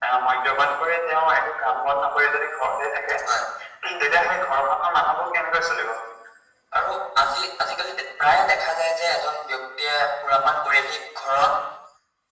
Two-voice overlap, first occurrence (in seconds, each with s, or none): none